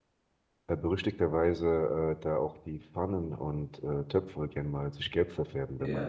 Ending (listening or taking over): taking over